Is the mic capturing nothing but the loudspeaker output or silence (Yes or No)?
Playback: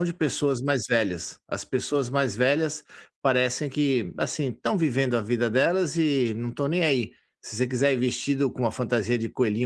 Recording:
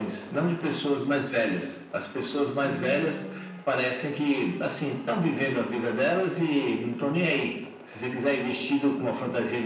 No